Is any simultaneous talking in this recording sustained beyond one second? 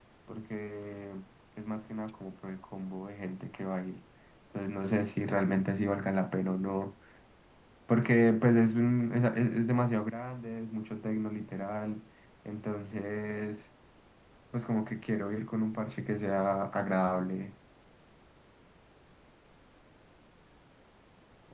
No

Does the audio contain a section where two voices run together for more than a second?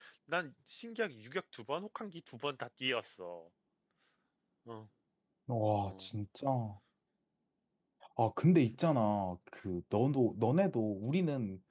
No

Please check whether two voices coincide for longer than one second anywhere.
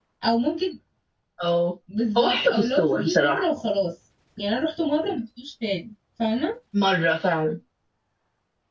Yes, from 2.2 s

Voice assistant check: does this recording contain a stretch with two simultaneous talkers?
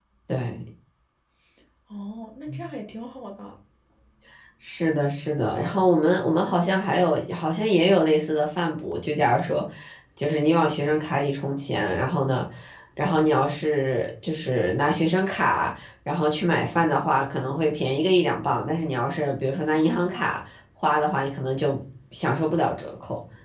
No

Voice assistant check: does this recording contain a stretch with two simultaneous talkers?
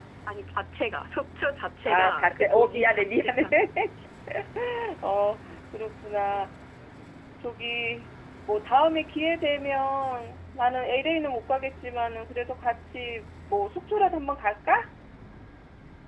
Yes, from 1.9 s

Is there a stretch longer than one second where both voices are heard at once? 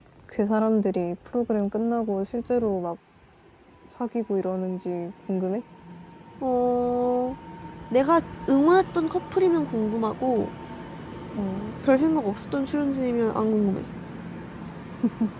No

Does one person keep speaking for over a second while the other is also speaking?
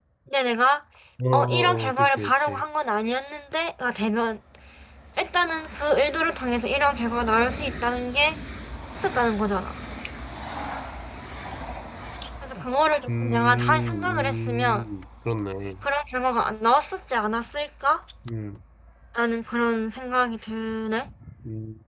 Yes, from 1.3 s

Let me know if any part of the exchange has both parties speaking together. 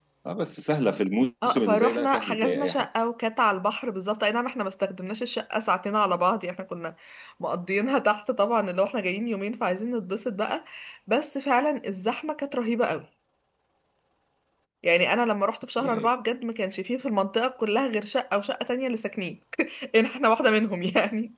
Yes, from 1.4 s

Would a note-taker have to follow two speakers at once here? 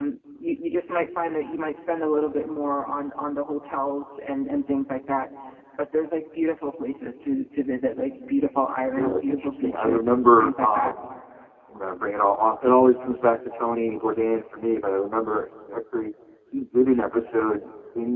Yes, from 8.9 s

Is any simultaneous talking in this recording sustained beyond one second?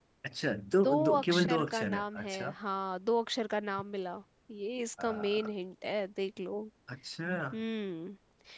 Yes, from 0.8 s

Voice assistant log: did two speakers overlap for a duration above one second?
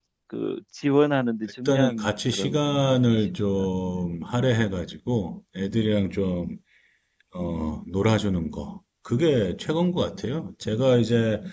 Yes, from 1.6 s

